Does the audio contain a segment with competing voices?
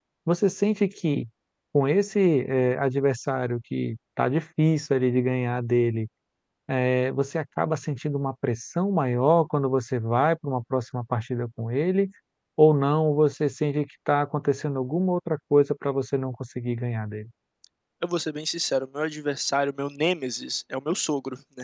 No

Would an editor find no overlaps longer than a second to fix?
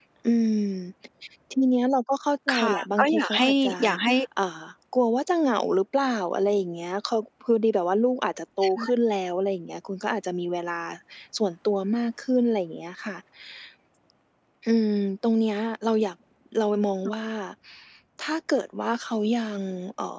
No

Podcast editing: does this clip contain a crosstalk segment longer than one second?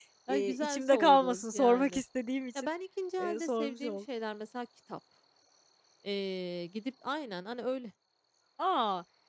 Yes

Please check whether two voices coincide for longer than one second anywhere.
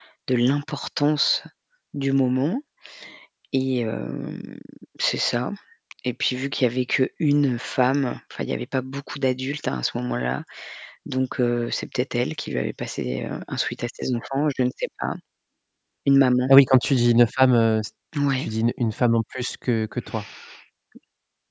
No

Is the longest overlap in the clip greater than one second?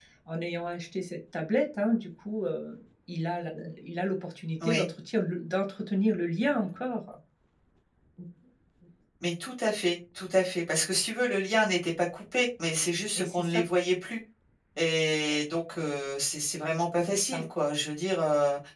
No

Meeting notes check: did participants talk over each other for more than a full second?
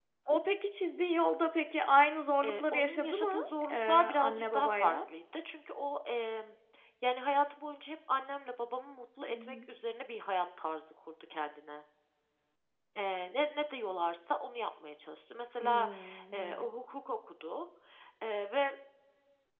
Yes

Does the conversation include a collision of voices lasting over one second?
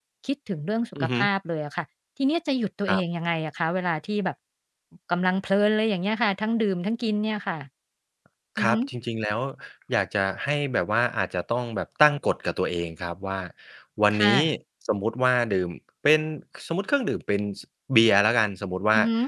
No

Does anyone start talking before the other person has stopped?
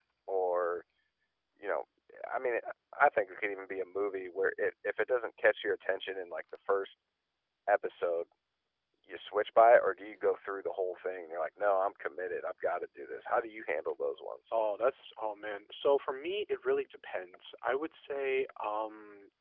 No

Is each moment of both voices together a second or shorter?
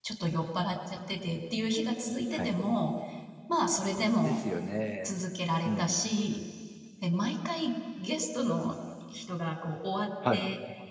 Yes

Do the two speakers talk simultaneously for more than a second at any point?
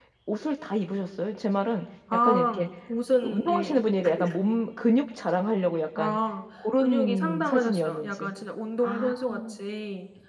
Yes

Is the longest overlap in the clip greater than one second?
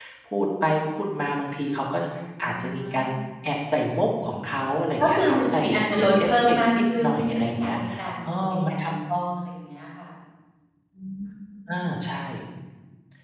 Yes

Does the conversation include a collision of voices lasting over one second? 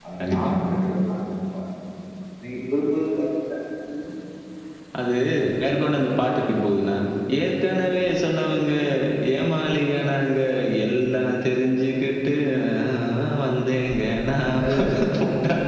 No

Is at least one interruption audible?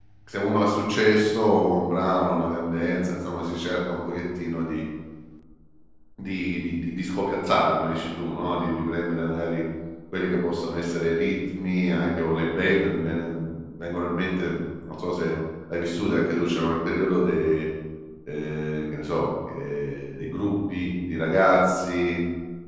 No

